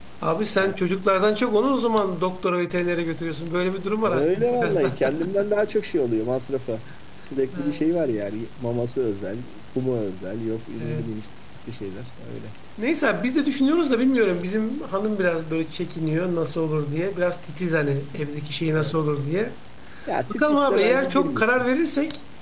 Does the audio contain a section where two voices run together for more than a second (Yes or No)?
Yes